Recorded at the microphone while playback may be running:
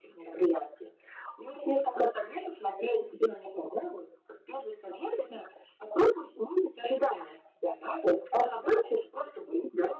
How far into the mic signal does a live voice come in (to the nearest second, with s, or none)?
none